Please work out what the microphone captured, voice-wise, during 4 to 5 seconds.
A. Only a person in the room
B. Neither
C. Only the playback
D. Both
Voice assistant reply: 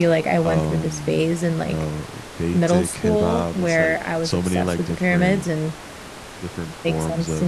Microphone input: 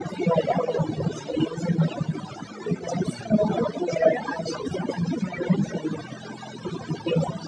C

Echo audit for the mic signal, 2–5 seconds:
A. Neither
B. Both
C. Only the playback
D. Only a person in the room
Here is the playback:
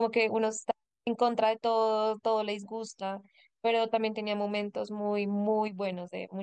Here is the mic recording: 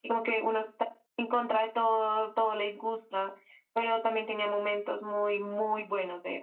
C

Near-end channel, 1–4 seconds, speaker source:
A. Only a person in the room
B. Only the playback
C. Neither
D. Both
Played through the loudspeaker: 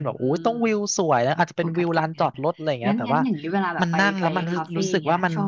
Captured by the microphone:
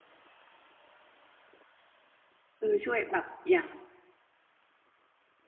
A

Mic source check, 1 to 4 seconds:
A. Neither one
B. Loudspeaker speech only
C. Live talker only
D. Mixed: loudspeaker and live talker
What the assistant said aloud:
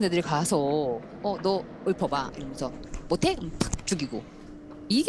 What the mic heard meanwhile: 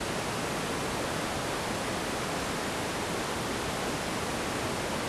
A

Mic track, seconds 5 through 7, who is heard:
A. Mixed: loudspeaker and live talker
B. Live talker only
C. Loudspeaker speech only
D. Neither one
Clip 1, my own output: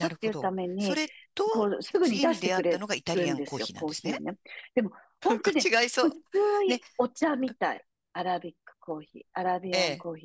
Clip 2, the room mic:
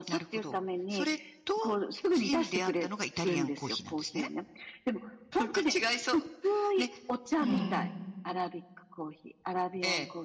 C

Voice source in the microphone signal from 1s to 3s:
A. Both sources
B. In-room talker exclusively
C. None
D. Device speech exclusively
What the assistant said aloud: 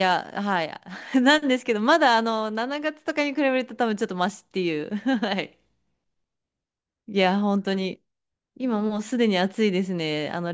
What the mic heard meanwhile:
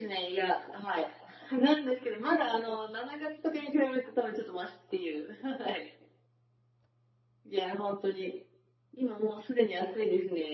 D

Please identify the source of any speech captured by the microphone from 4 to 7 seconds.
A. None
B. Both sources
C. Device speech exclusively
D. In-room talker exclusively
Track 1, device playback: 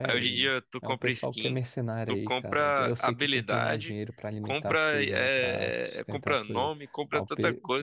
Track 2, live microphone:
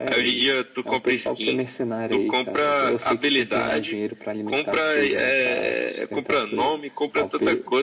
C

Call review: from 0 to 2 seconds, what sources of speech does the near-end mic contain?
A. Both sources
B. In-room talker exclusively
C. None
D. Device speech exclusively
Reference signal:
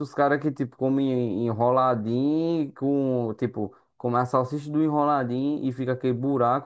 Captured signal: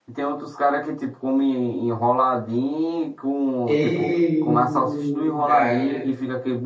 D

